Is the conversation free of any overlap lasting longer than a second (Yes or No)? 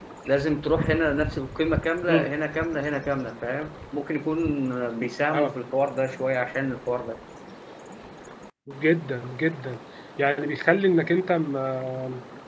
Yes